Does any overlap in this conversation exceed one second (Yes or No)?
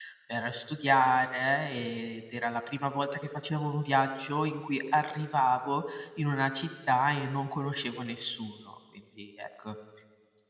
No